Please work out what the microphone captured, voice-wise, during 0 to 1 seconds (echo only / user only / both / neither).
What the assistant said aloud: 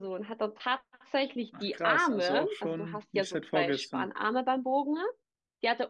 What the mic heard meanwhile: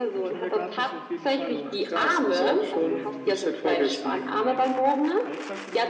both